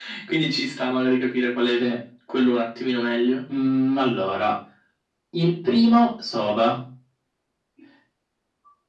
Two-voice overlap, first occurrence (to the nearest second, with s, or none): none